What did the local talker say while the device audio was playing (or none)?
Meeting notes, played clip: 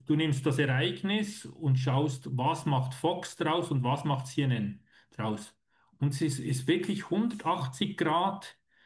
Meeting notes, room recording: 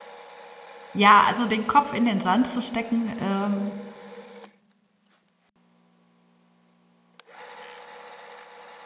Ja, also den Kopf in den Sand zu stecken, ähm,